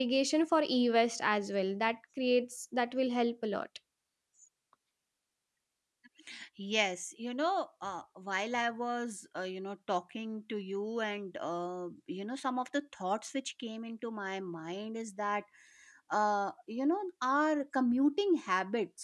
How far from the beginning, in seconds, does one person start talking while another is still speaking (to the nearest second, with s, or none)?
none